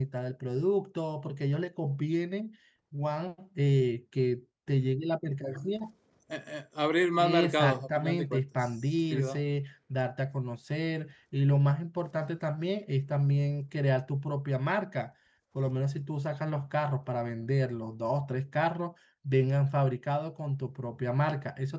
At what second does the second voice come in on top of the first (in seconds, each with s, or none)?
7.2 s